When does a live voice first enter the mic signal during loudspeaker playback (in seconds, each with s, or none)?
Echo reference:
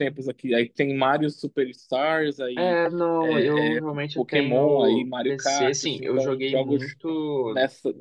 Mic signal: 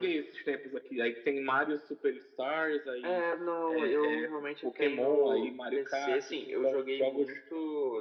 none